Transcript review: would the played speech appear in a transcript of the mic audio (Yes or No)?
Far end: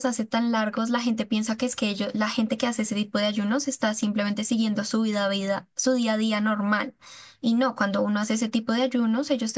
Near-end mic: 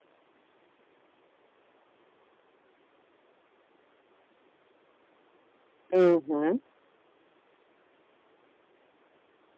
No